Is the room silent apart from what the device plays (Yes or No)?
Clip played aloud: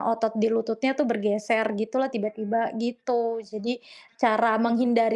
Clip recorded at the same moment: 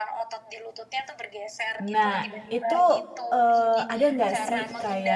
No